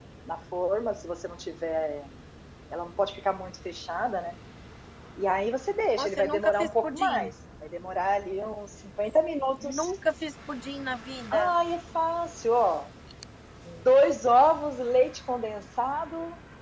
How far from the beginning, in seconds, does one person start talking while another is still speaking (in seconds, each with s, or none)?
6.0 s